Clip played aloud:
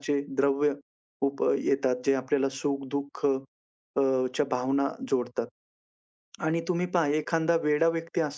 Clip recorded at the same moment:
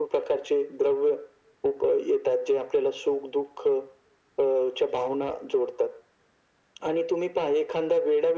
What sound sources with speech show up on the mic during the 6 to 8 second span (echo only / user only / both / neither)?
echo only